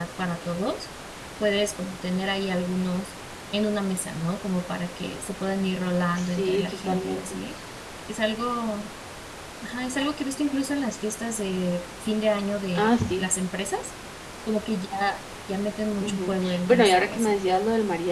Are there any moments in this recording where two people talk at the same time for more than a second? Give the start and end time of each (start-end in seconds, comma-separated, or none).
6.2-7.4, 16.0-17.4